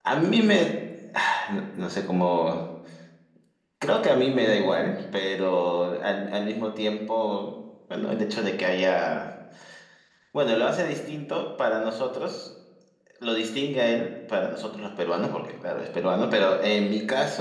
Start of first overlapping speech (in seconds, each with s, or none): none